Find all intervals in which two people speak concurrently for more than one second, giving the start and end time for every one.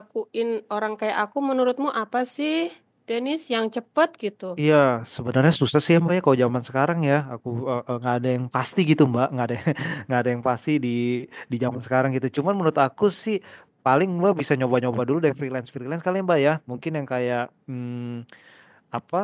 none

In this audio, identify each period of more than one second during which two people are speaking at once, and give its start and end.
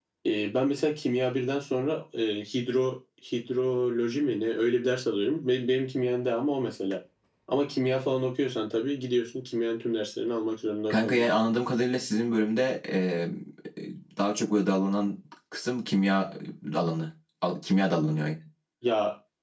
none

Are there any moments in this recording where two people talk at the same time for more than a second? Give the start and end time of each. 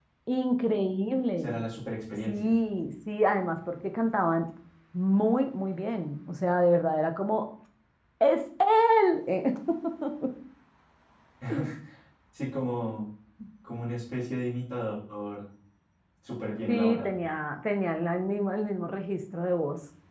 none

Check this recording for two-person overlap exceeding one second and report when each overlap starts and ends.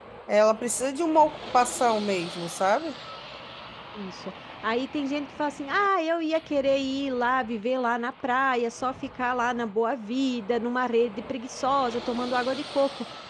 none

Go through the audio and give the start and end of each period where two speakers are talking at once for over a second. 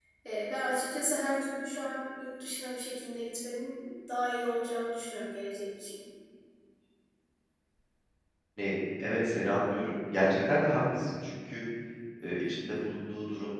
none

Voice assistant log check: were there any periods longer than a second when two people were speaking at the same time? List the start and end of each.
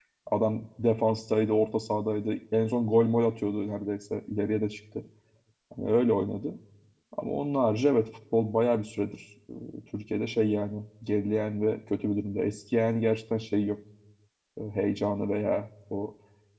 none

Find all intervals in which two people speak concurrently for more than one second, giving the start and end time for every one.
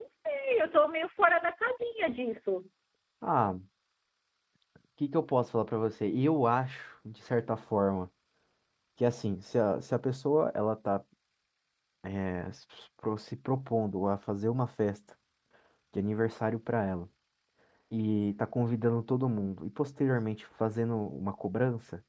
none

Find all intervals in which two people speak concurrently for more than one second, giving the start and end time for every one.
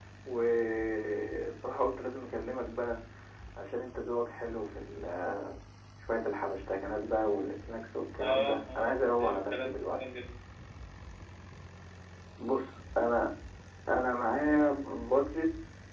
8.2-10.0

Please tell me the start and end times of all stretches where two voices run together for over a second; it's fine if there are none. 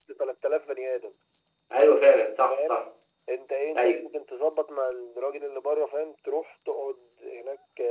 none

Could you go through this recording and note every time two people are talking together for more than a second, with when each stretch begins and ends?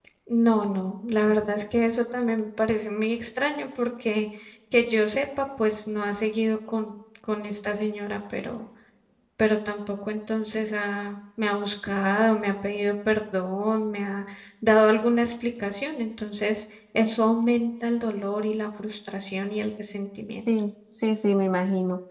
none

